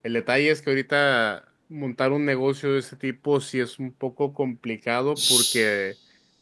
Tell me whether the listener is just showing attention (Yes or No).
Yes